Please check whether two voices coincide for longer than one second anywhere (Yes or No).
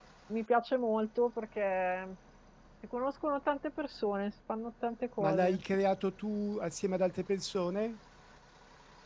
No